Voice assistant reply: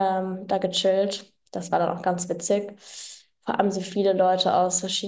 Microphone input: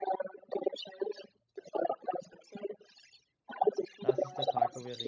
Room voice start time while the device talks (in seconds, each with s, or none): 4.0 s